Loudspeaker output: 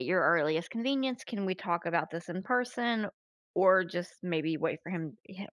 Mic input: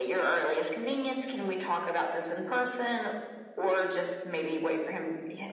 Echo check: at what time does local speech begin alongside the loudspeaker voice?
none

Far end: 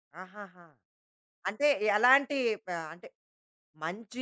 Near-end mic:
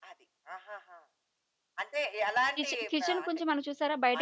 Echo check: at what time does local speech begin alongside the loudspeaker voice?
2.5 s

